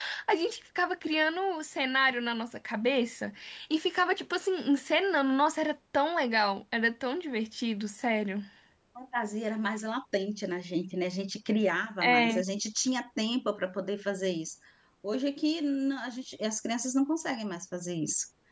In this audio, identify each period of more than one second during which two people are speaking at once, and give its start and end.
none

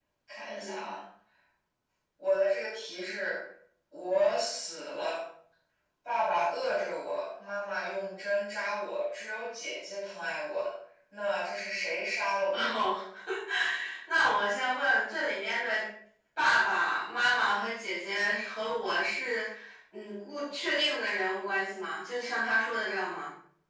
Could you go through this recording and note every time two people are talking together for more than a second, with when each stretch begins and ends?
none

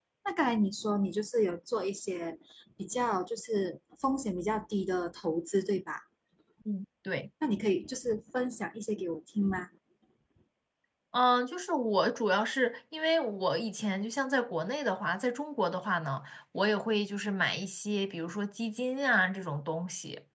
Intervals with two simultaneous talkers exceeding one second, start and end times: none

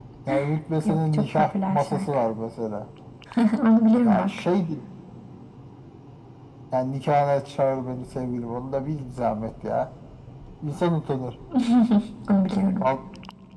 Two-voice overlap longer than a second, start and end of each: 0.8-2.0

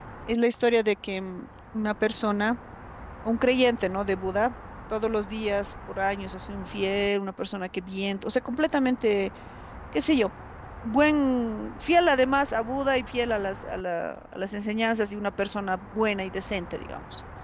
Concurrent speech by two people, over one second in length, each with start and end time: none

